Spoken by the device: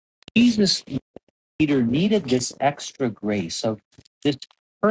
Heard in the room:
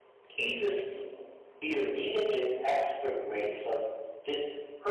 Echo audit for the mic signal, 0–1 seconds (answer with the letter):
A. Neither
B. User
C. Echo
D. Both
C